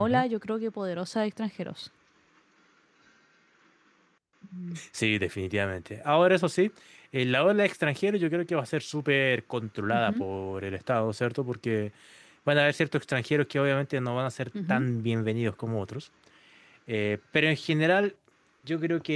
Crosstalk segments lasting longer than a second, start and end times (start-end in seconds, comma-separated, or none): none